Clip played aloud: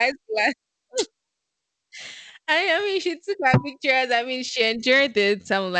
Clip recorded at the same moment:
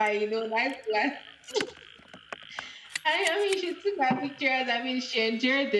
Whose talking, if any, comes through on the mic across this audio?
echo only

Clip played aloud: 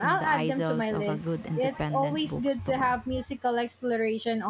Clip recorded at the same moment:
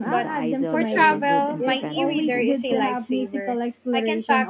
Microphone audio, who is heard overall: both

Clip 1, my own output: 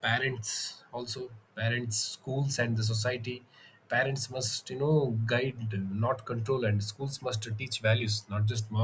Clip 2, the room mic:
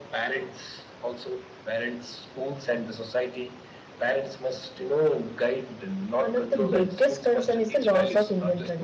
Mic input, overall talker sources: both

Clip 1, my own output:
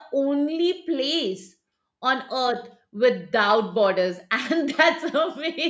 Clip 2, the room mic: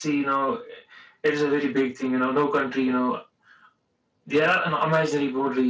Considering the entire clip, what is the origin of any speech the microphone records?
user only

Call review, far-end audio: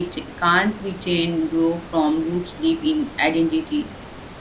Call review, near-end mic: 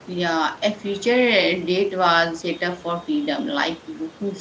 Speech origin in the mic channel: user only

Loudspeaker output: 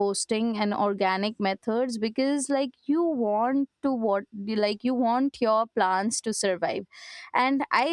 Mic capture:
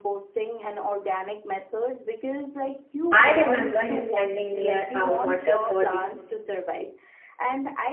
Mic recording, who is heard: both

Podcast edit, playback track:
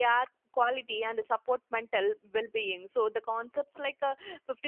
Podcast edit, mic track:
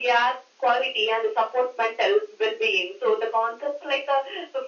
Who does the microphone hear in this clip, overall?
echo only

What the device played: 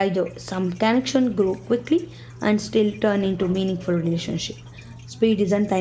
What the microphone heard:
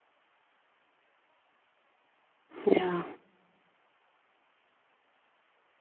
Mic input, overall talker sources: user only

